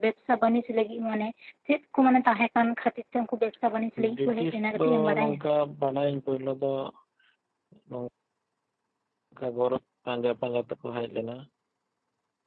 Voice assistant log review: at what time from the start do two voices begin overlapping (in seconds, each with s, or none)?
4.0 s